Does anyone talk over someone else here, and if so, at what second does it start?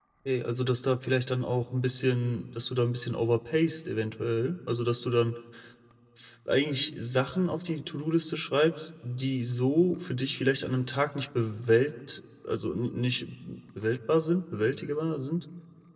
none

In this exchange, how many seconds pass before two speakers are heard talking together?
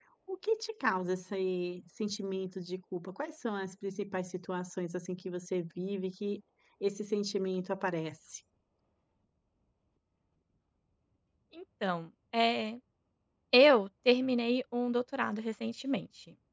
none

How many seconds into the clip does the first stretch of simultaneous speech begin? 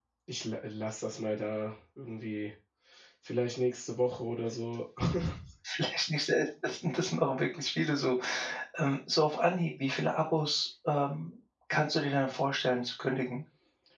none

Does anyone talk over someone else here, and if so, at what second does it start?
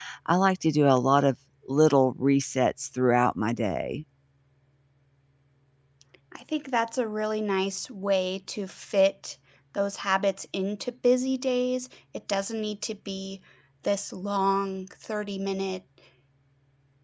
none

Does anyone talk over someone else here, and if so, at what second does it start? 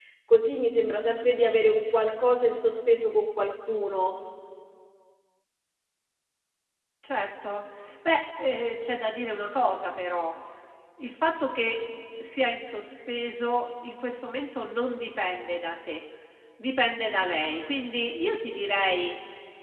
none

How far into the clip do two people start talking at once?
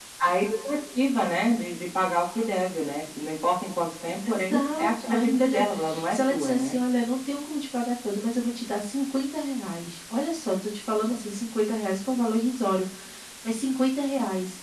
4.2 s

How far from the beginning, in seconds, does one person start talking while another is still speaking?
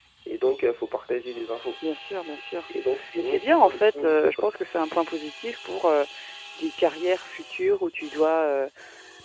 3.2 s

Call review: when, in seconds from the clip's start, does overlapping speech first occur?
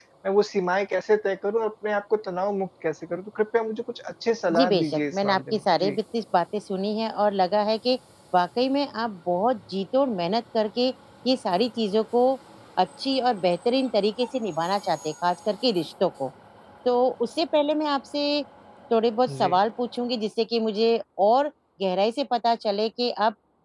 4.5 s

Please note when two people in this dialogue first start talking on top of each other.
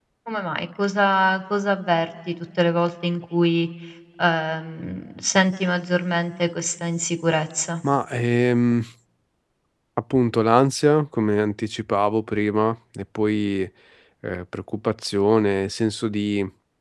none

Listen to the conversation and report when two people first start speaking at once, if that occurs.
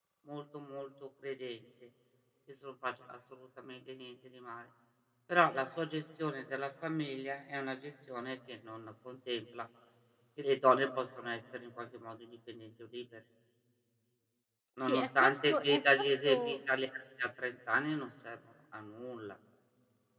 14.8 s

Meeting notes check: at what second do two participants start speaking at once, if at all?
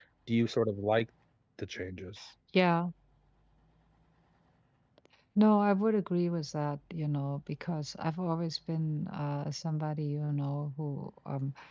none

